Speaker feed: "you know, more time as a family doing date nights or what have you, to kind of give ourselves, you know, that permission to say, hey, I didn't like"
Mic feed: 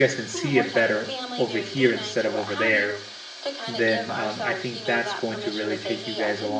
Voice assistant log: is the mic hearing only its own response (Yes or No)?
No